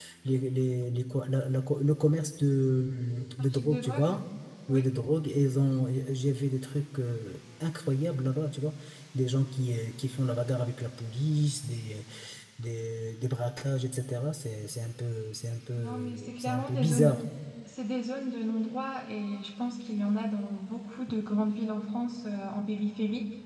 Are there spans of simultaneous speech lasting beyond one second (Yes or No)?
Yes